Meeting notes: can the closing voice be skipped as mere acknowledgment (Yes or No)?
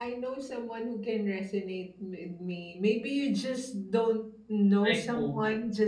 Yes